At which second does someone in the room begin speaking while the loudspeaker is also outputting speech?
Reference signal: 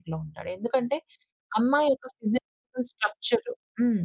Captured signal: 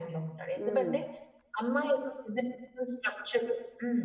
0.6 s

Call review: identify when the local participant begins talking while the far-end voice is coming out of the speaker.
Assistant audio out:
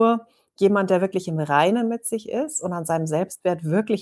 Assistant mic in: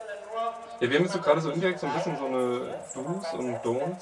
0.8 s

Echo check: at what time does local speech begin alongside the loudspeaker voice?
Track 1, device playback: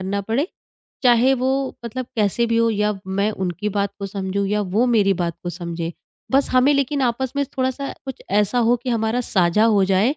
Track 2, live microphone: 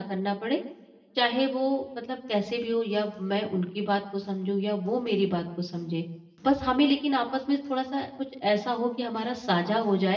none

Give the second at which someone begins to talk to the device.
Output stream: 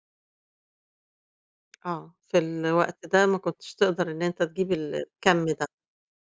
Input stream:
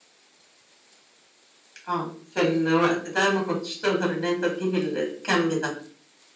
none

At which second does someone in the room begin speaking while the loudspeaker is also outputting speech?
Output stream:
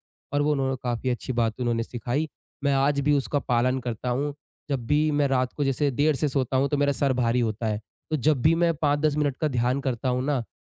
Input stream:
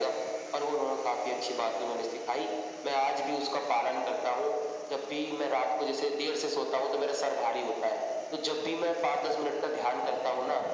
none

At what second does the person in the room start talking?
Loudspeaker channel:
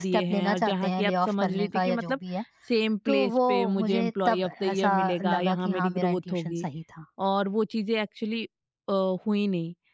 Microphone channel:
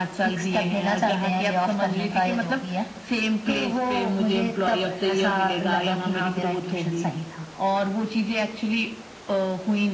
none

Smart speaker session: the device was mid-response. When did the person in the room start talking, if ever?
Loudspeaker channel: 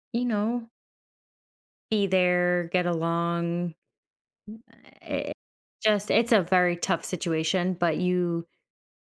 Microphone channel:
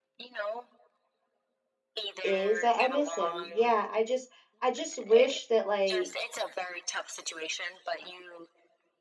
2.2 s

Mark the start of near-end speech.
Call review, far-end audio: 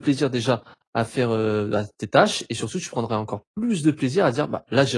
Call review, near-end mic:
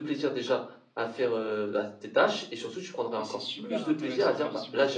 3.1 s

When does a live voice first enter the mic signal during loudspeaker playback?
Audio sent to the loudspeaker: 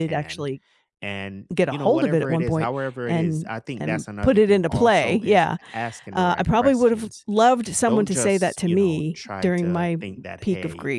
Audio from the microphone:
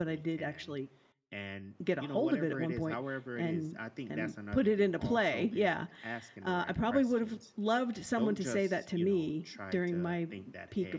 none

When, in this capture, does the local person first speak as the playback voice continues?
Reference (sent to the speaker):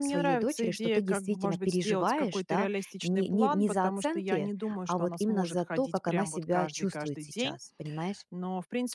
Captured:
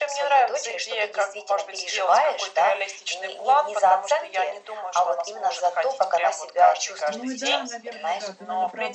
7.1 s

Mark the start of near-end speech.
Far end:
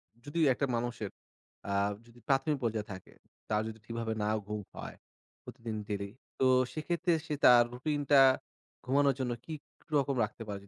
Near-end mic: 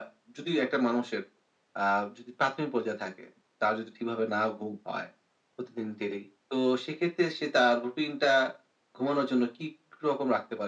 none

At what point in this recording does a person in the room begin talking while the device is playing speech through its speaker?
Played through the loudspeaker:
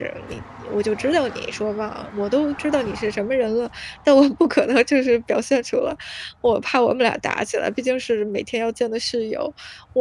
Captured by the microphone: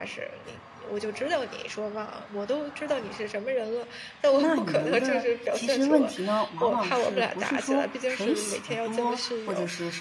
4.4 s

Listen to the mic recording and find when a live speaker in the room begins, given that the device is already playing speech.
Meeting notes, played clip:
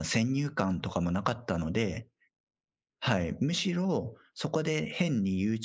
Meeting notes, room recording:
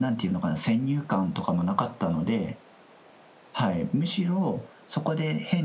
none

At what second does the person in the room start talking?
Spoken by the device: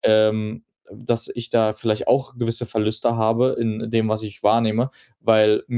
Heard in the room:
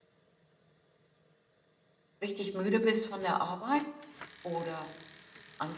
2.2 s

